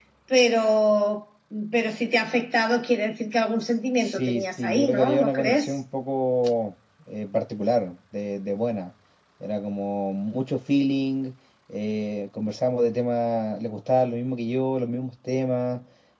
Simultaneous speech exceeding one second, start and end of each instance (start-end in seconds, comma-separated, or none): 4.0-5.8